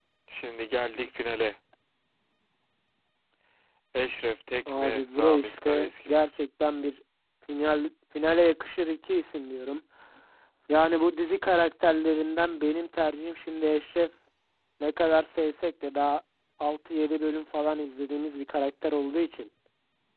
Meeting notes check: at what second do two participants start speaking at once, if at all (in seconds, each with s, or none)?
4.7 s